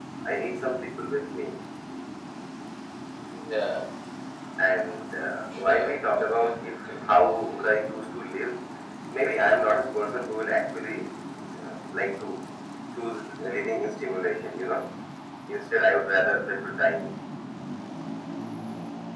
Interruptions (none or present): present